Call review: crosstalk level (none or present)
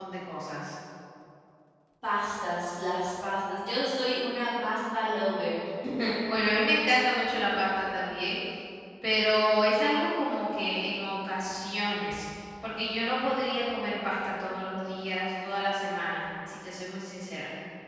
none